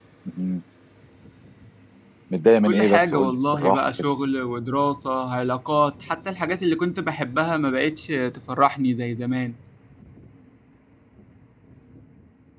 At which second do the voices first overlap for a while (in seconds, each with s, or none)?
2.6 s